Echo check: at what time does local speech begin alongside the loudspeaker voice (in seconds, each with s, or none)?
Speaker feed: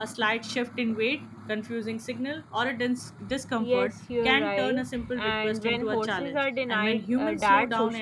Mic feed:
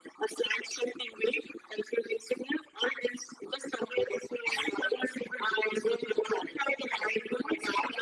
none